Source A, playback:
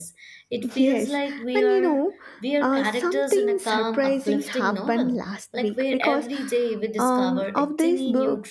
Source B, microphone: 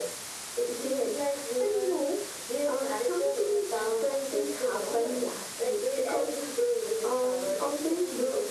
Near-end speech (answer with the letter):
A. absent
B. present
A